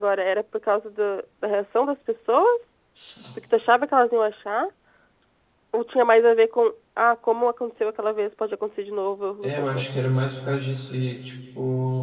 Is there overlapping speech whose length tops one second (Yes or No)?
No